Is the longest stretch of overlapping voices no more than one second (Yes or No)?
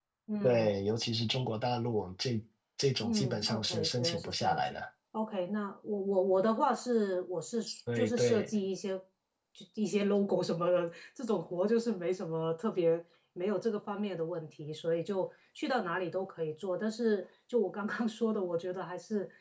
No